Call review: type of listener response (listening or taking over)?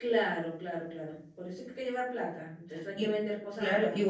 taking over